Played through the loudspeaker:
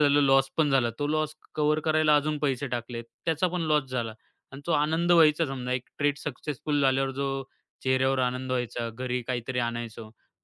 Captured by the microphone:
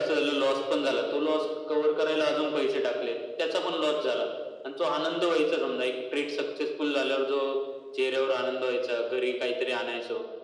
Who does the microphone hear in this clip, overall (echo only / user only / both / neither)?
echo only